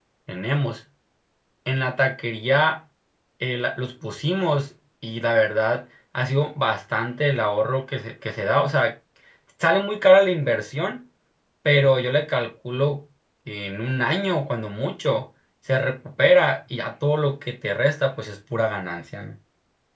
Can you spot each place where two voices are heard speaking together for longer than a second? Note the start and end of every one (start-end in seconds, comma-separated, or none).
none